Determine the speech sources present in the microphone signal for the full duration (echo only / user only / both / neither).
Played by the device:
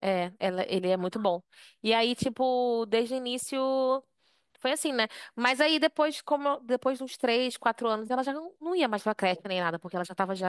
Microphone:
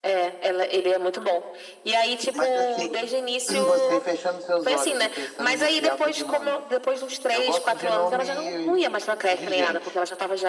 both